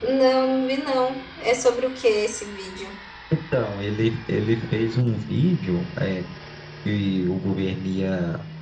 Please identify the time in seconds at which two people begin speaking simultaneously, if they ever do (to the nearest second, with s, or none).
none